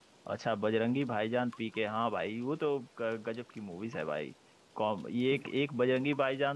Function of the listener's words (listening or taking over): listening